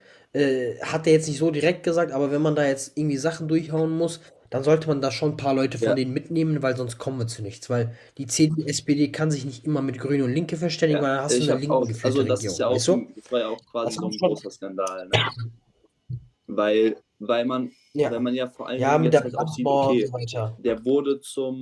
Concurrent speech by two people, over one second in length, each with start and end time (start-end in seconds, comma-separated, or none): 10.9-13.0, 18.8-20.1